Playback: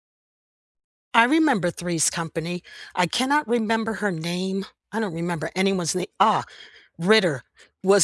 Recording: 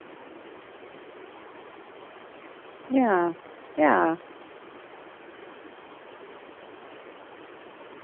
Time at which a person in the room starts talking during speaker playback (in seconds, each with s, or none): 2.9 s